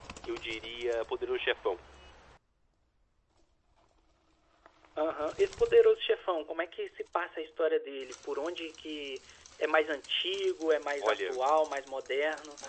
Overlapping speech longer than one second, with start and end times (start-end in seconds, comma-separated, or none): none